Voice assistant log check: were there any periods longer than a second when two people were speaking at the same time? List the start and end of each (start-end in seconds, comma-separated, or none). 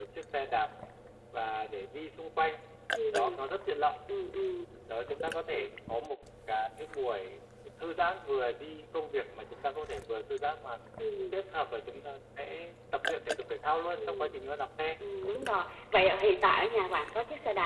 none